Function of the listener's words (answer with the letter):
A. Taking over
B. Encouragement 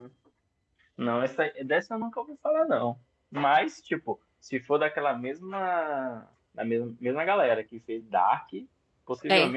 B